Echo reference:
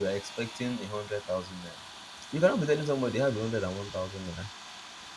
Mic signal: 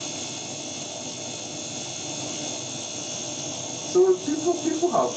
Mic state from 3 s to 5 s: user only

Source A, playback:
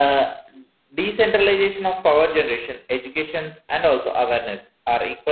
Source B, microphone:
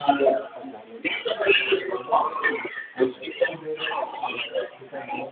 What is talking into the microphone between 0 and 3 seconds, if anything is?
both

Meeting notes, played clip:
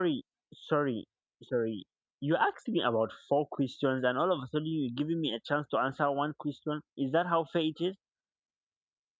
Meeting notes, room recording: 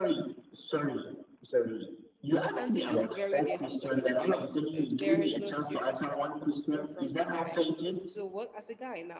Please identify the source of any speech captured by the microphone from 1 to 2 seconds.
echo only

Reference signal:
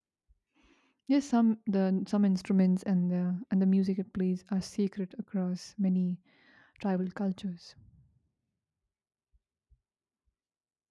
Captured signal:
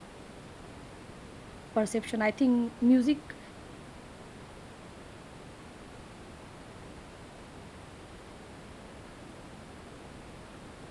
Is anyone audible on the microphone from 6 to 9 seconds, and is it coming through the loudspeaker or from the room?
neither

